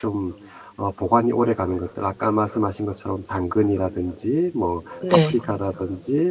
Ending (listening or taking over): listening